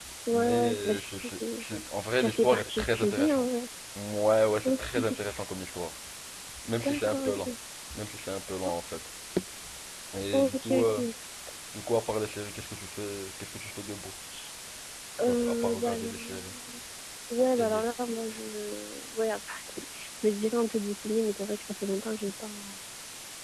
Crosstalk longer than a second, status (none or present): present